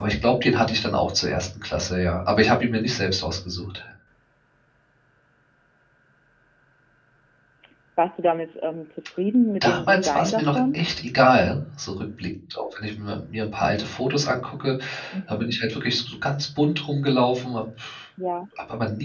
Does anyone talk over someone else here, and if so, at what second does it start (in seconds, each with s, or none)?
9.6 s